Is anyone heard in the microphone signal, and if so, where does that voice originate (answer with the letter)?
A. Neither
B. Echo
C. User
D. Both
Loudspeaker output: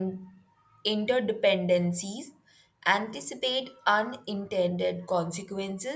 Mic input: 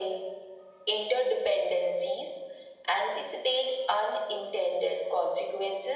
B